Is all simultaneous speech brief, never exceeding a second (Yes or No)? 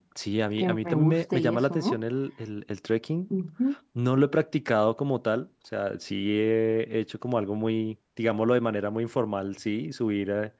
No